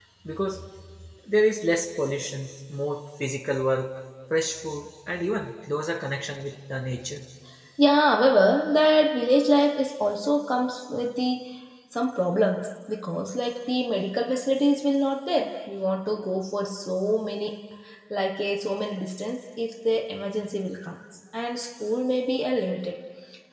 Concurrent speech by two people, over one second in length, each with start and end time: none

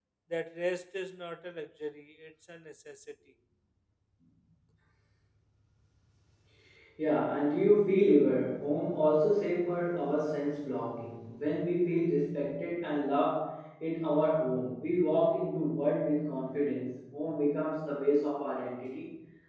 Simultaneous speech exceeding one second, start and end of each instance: none

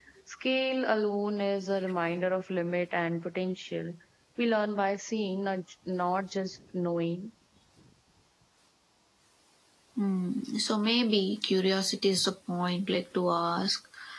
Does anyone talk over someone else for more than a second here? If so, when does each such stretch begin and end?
none

